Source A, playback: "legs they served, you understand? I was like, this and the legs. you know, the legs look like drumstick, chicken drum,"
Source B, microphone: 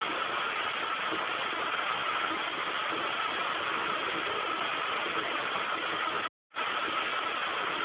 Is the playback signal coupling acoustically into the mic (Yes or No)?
No